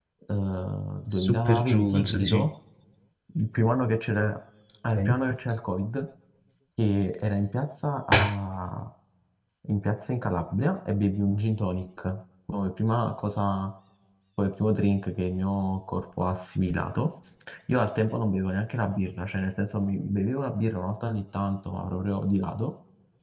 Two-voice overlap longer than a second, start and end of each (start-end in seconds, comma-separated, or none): 1.2-2.5